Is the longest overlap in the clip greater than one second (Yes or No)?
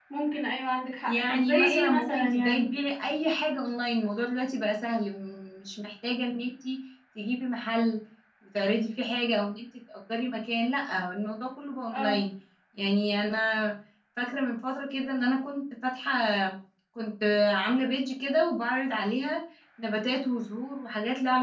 Yes